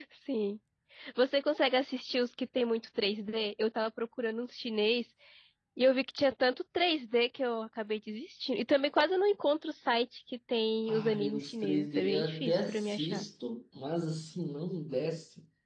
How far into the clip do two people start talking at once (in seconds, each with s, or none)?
10.9 s